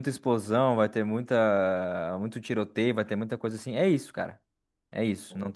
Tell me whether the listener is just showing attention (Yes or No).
Yes